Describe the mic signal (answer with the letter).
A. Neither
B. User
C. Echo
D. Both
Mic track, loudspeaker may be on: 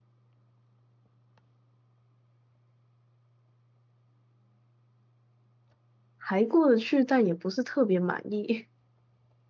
B